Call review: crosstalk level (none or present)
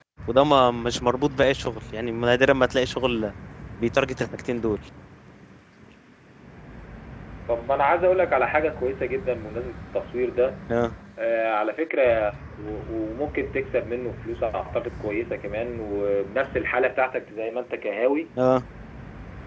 none